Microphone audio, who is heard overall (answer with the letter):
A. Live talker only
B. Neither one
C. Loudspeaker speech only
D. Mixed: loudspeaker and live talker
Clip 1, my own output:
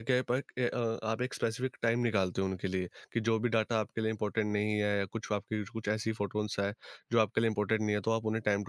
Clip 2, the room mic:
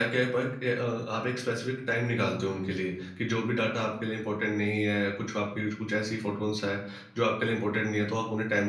C